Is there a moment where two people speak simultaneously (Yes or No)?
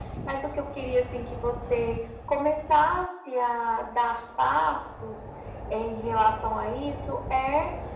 No